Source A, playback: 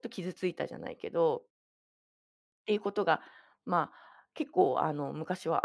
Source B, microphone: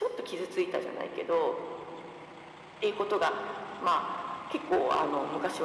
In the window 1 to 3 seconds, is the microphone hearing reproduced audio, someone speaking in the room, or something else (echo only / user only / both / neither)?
echo only